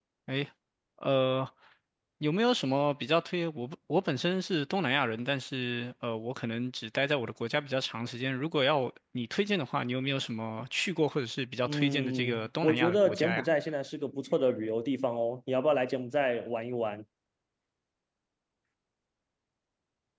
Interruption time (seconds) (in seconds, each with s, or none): 11.6 s